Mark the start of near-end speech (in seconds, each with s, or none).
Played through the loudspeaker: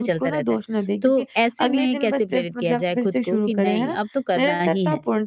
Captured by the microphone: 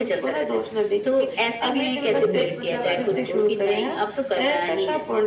2.1 s